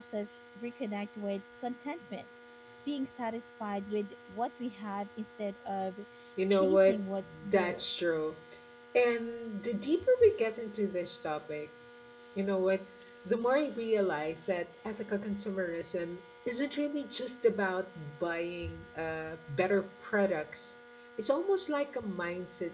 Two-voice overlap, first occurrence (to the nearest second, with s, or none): 7 s